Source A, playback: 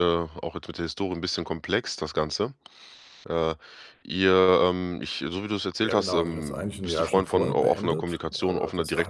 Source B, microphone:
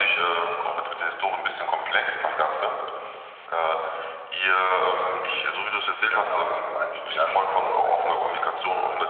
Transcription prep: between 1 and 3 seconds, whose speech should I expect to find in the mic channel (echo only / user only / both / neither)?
echo only